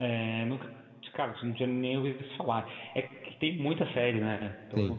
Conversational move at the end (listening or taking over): listening